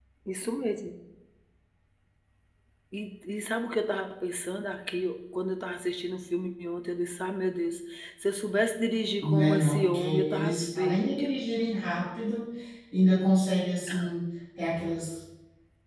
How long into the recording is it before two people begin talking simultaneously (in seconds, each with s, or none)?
9.2 s